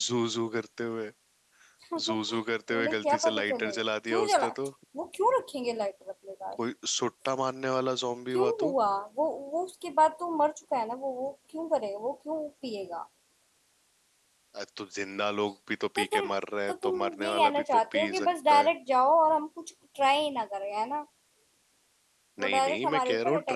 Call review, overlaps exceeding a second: present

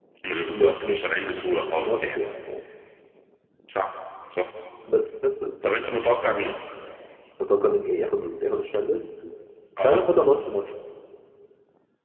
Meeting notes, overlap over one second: present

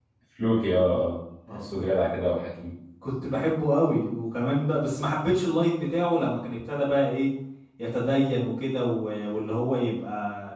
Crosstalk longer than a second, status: none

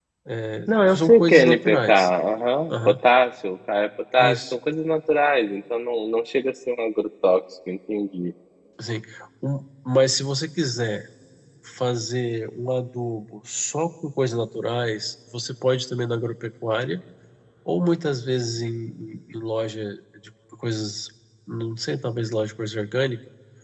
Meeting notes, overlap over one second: present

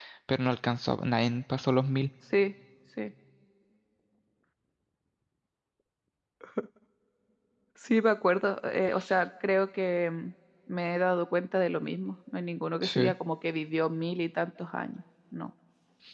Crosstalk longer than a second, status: none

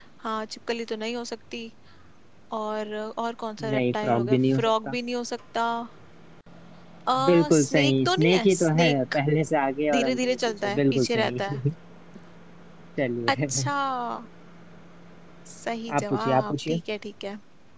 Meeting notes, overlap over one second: present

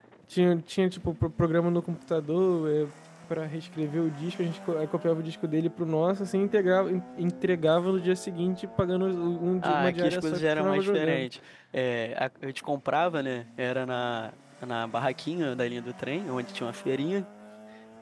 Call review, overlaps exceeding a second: present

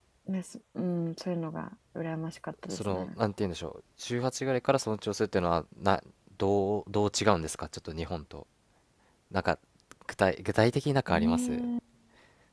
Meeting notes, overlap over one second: none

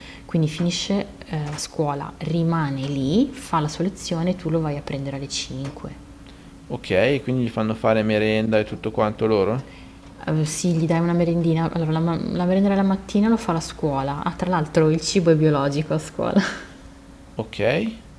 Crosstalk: none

